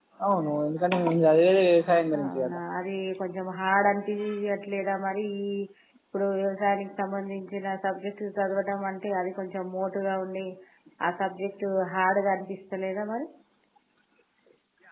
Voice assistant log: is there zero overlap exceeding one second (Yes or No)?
Yes